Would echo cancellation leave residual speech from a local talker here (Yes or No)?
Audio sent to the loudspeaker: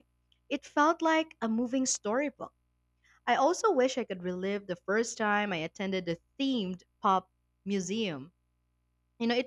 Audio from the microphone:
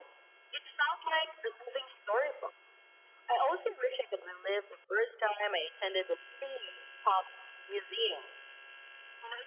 No